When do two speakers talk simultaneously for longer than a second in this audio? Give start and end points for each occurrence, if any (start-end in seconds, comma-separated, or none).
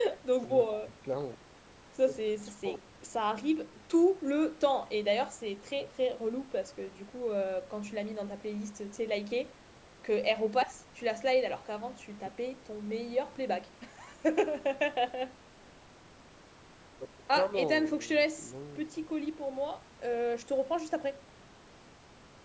17.4-19.0